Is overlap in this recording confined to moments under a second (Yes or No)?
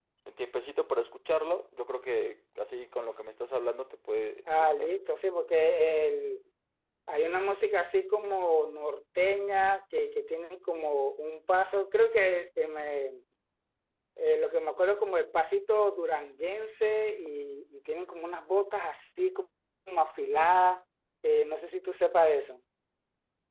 Yes